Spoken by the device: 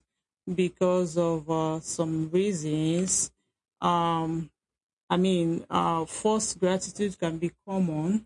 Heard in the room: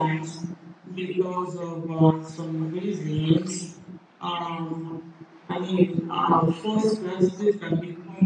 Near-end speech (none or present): none